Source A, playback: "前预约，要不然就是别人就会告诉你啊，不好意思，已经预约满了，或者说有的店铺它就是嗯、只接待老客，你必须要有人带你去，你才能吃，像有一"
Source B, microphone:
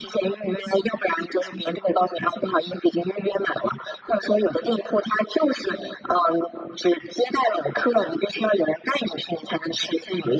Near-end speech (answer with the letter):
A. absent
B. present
A